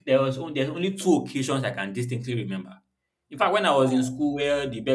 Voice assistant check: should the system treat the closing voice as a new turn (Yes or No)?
No